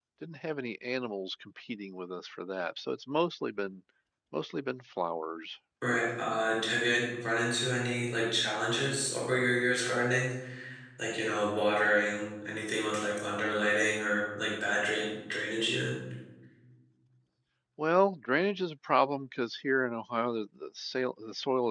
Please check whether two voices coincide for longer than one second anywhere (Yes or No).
No